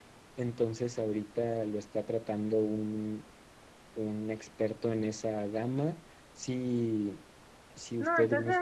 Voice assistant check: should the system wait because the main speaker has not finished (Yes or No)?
No